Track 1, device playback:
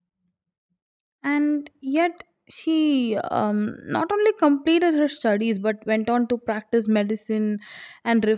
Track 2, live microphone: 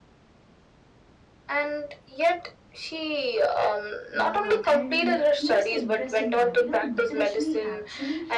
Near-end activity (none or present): present